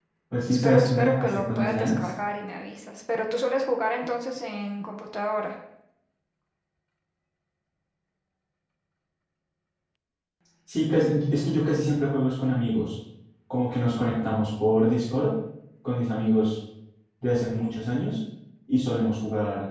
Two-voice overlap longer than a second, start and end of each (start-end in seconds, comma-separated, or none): 0.6-2.1